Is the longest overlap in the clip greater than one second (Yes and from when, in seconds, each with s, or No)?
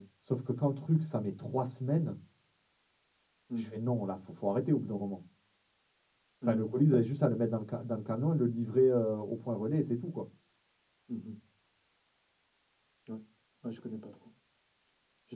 No